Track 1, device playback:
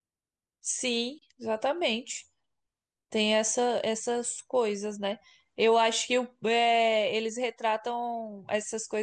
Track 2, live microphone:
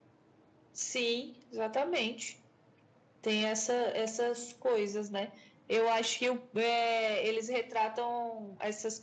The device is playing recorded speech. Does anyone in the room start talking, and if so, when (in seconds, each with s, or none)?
none